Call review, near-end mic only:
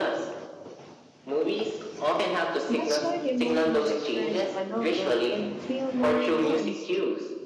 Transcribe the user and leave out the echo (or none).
That's why the emotional experience of a novel can feel more nuanced